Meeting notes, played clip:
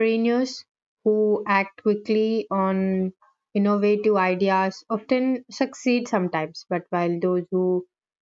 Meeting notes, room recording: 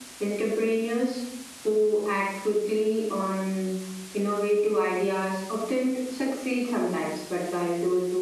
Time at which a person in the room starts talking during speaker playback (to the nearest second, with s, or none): none